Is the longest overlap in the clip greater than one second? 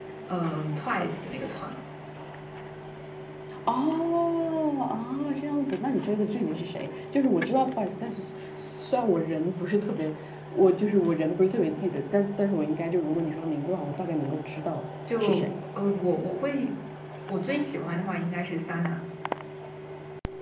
No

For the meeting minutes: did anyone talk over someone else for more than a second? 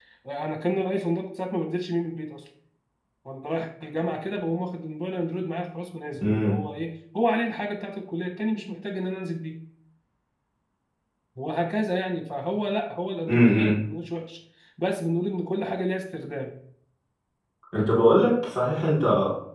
No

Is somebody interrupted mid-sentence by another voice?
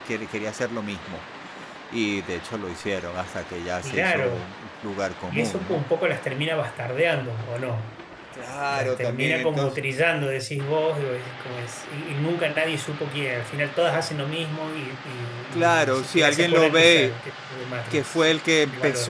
Yes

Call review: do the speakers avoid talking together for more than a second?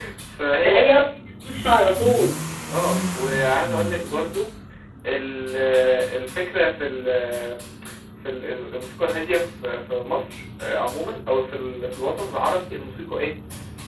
Yes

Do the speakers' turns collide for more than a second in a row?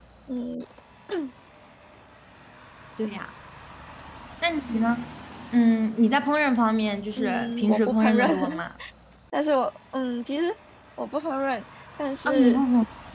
Yes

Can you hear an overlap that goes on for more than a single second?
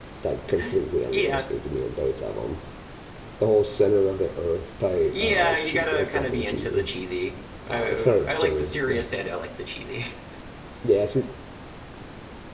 Yes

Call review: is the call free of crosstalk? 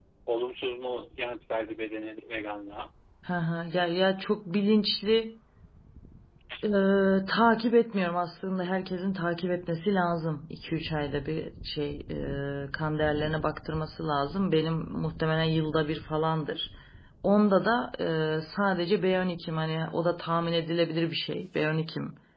Yes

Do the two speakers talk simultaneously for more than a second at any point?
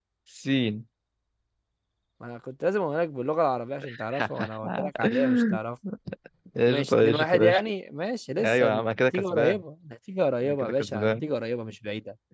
Yes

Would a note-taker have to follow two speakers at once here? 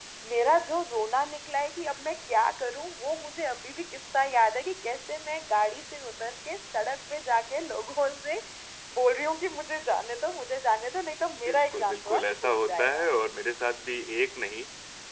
Yes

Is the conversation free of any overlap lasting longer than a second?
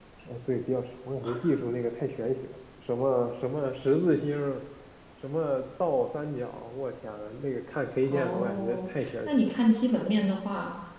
No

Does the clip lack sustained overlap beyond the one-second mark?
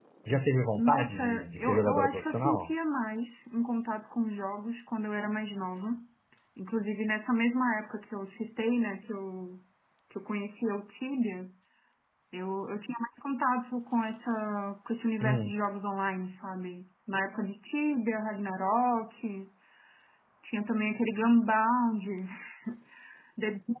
No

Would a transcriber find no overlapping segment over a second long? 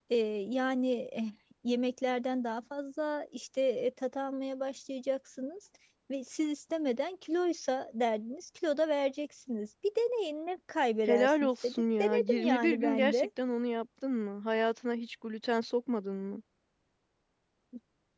No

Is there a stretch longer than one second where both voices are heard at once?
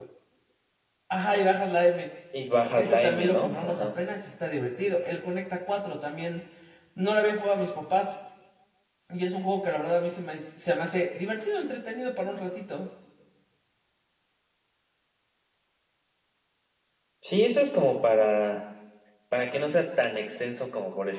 Yes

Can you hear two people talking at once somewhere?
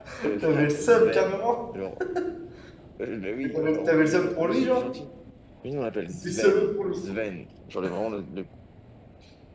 Yes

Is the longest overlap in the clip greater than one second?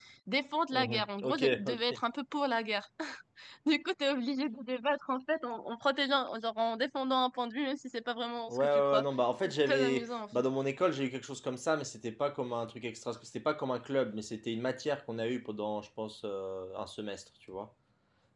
Yes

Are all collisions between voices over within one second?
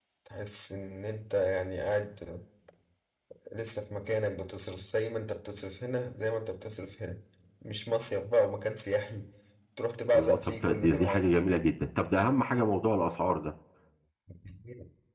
No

